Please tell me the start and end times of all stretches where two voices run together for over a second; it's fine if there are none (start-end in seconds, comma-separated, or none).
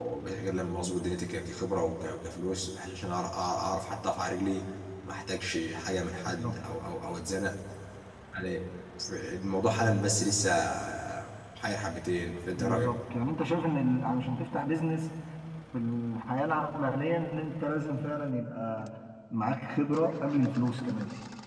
none